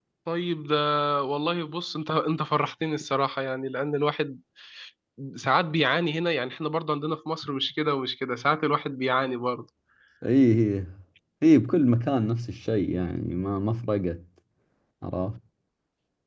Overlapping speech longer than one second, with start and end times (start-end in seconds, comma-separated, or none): none